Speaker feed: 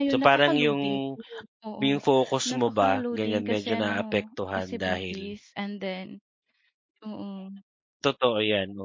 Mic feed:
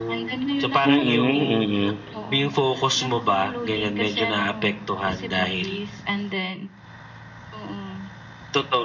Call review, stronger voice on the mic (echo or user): user